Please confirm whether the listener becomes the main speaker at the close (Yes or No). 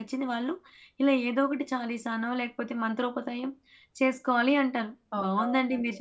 No